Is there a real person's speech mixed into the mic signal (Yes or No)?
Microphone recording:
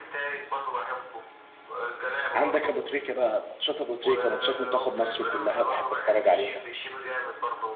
Yes